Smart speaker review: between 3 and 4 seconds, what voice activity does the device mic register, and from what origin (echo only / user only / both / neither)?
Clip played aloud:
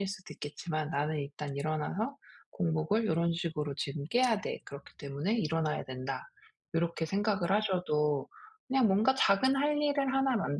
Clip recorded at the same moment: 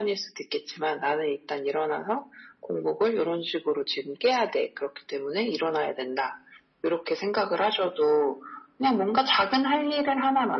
echo only